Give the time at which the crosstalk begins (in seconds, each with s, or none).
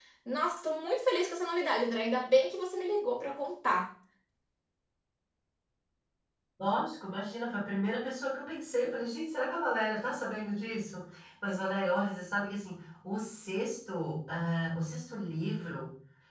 none